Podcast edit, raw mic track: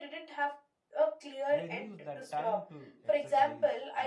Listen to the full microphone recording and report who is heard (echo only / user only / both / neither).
both